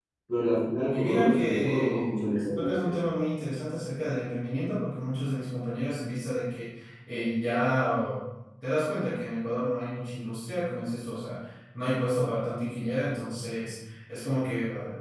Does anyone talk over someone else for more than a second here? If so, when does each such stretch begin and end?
0.9-2.1

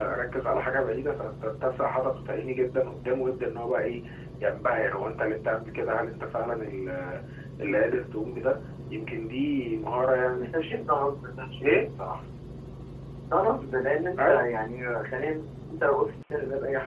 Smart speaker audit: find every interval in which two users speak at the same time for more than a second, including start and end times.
none

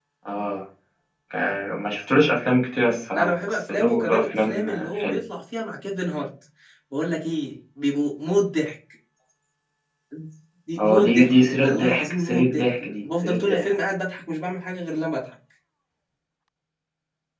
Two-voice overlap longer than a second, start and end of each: 3.1-5.2, 10.8-13.7

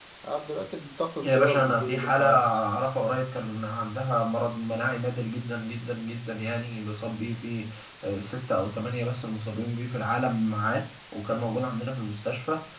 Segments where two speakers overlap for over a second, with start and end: 1.2-2.6

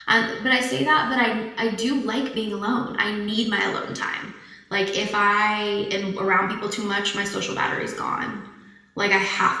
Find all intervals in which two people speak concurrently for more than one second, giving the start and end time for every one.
none

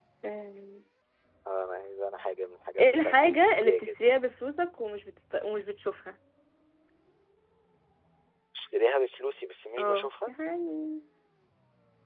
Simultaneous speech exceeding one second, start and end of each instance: 2.8-4.1

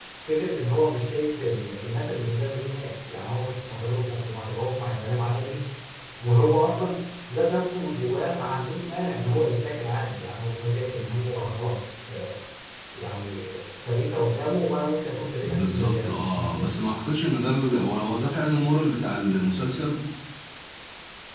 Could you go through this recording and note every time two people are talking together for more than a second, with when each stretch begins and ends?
15.4-16.7

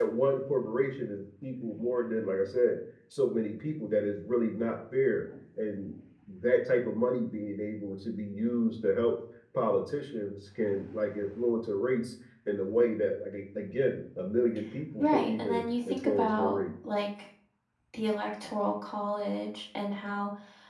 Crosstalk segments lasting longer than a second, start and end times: 15.0-16.6

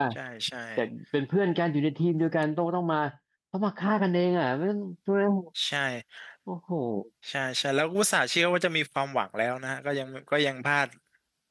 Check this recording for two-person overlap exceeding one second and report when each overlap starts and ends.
none

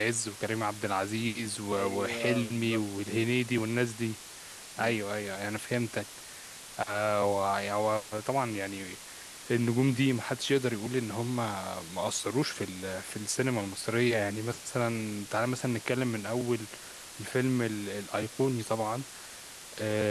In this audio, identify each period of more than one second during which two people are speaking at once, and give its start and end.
1.8-3.2

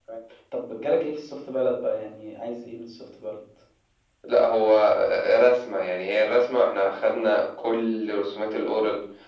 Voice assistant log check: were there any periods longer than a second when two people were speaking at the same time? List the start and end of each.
none

